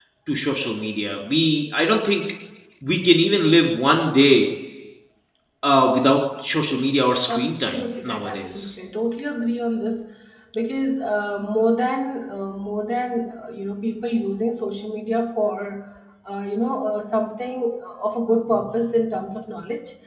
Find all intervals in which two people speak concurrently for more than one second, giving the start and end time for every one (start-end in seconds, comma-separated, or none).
7.3-8.8